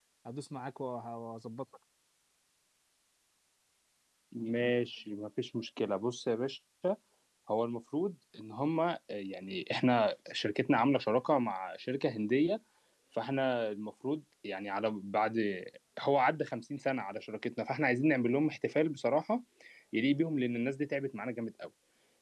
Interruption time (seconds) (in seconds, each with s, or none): none